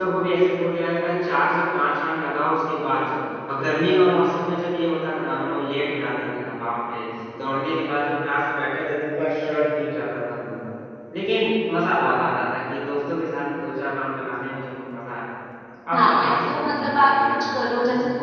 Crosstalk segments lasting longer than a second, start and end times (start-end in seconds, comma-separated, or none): 15.9-17.4